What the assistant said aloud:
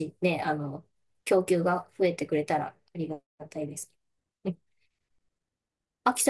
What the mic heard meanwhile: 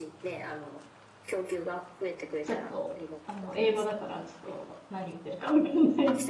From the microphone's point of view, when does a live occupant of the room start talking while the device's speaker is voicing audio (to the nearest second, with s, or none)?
2 s